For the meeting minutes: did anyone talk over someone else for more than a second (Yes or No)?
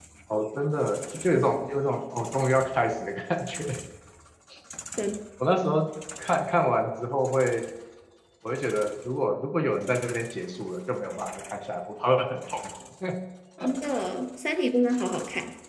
No